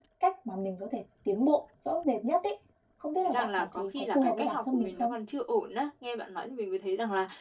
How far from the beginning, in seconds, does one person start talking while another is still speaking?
3.2 s

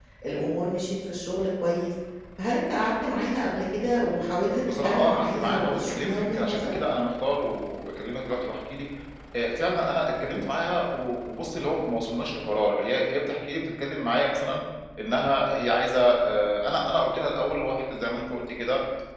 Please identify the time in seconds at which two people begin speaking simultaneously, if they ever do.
4.6 s

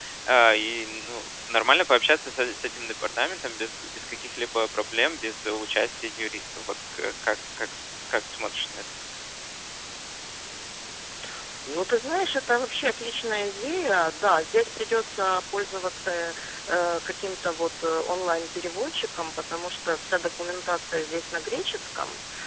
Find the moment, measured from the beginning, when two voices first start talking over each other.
none

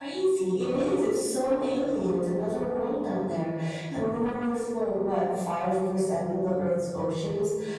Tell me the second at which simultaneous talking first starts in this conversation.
none

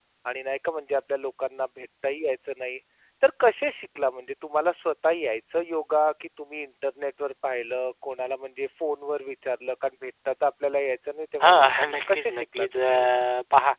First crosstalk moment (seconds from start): 11.4 s

